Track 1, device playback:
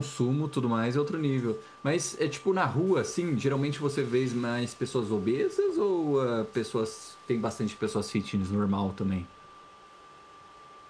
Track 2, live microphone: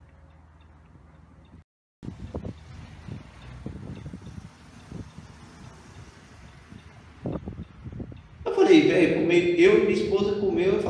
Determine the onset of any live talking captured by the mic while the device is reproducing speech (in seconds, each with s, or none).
8.4 s